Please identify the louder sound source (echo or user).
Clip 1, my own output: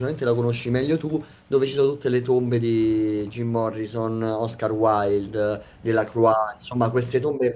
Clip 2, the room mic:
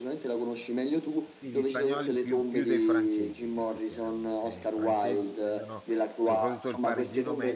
echo